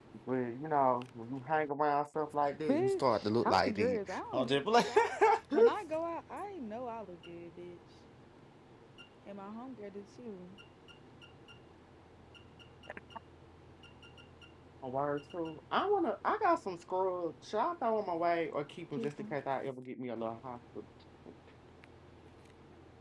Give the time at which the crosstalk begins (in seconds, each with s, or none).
2.7 s